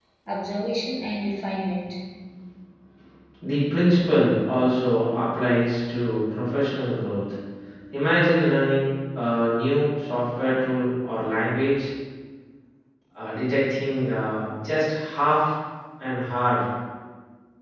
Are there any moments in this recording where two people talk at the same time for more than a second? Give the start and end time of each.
none

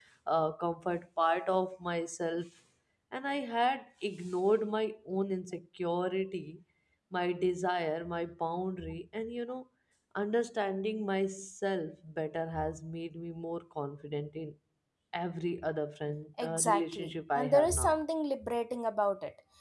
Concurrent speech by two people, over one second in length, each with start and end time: 16.4-18.0

